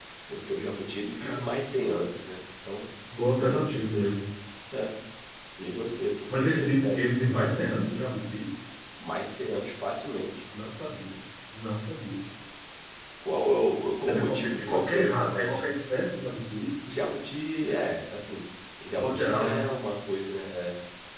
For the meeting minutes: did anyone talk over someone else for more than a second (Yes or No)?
Yes